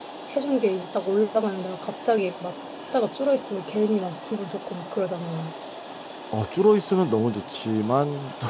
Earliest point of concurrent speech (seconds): none

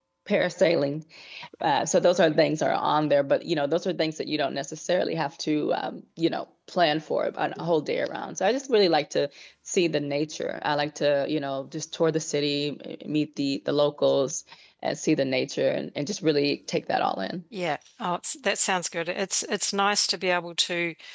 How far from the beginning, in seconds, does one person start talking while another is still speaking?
none

